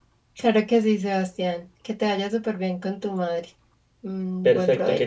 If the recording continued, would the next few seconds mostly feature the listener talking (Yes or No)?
Yes